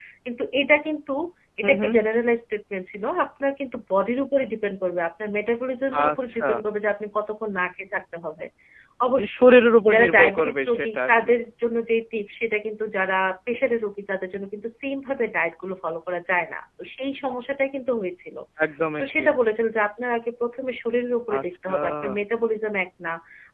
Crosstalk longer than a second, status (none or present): present